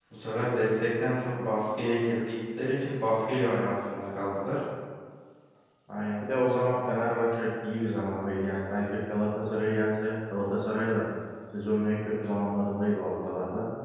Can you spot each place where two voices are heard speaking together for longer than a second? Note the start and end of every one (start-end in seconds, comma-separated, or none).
none